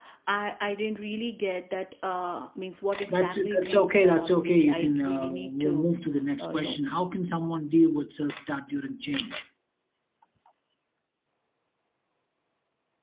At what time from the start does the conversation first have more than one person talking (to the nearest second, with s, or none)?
3 s